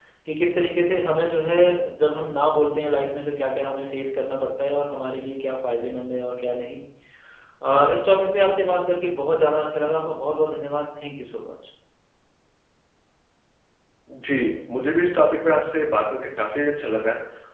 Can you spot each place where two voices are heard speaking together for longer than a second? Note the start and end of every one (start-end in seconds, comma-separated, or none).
none